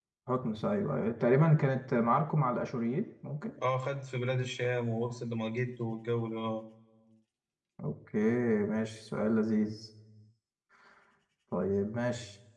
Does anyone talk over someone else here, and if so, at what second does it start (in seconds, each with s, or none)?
none